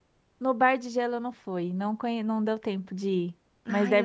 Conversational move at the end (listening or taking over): taking over